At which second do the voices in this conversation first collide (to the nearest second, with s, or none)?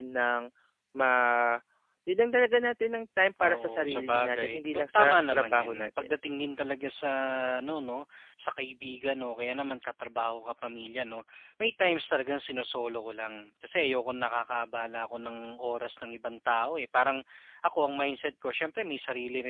3 s